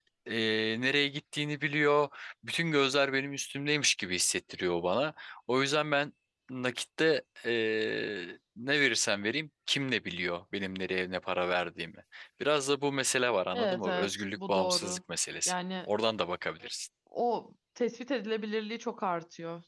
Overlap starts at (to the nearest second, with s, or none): 14 s